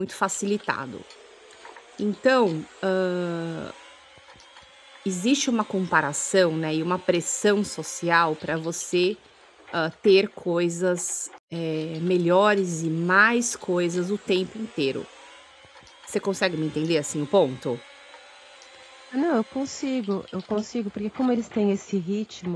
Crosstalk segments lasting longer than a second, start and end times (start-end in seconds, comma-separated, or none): none